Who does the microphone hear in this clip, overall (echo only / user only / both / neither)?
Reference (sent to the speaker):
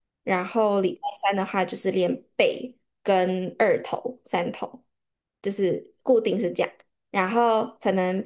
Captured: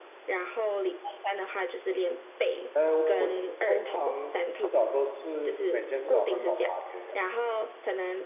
both